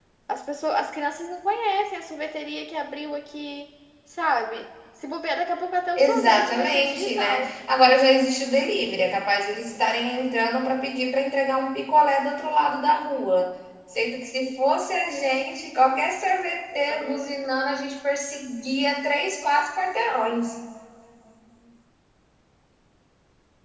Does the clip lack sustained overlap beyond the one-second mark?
No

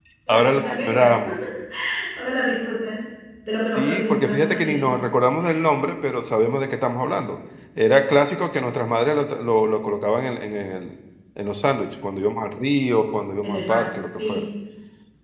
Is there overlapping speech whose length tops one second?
Yes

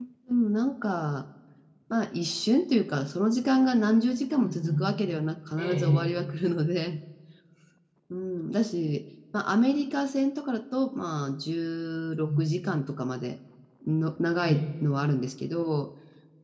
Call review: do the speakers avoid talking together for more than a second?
Yes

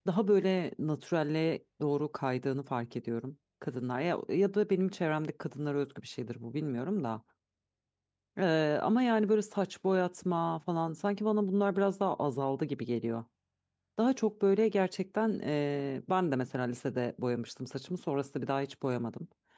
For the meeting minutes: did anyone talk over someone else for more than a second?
No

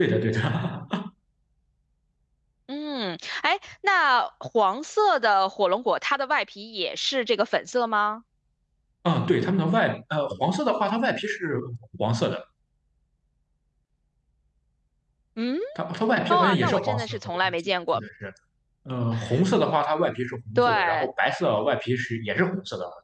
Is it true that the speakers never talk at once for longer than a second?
No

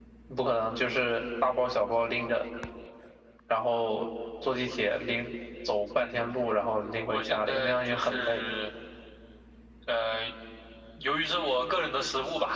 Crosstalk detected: Yes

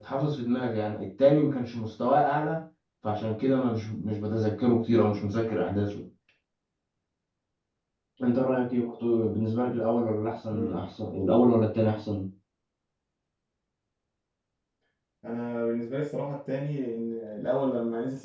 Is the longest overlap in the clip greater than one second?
No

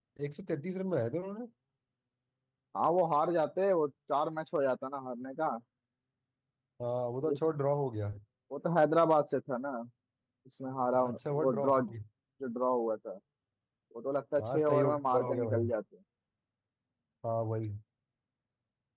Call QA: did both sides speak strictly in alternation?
No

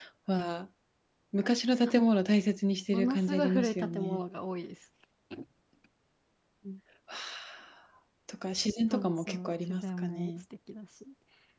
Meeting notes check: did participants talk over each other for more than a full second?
Yes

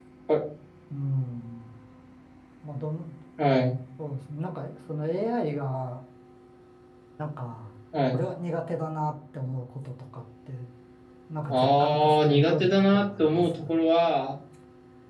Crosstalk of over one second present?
Yes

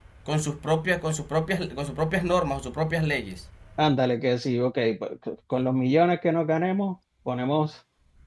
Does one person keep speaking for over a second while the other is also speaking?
No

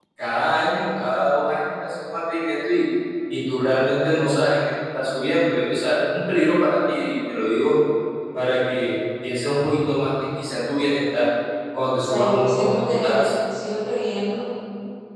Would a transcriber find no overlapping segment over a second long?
No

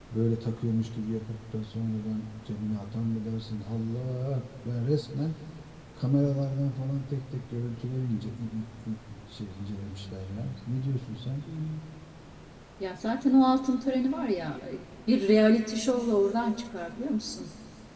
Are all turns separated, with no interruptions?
Yes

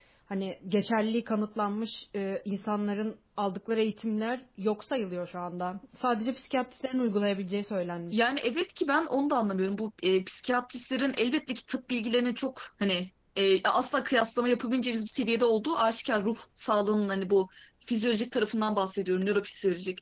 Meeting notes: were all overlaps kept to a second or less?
Yes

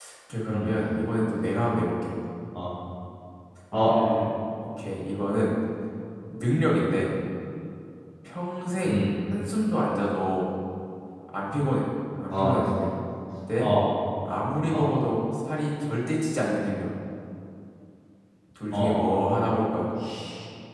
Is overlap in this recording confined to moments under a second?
Yes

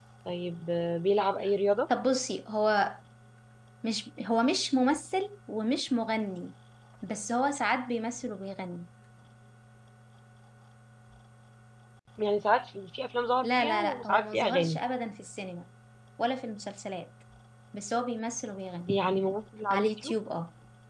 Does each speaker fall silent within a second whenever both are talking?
No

